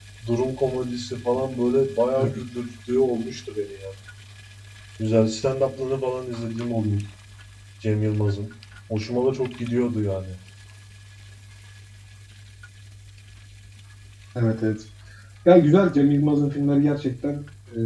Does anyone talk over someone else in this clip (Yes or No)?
No